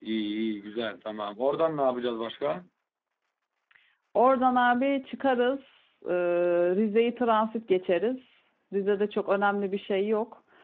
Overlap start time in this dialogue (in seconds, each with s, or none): none